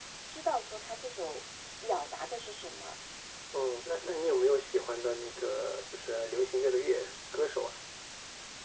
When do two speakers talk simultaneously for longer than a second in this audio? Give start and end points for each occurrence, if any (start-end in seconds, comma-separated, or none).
none